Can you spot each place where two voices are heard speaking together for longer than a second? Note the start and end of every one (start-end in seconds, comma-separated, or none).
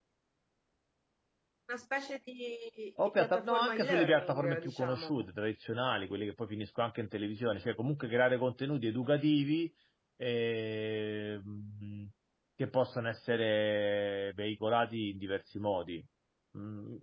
3.2-5.2